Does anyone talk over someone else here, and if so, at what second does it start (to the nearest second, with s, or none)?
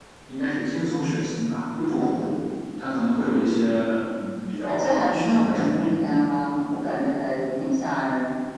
5 s